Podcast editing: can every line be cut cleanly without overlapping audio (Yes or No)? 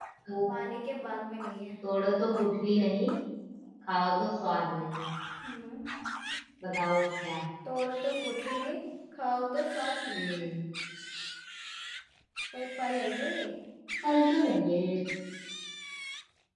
Yes